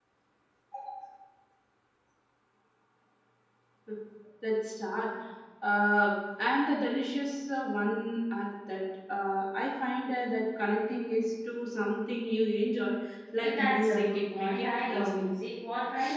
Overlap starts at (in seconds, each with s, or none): 13.4 s